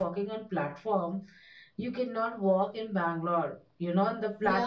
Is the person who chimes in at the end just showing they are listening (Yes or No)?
No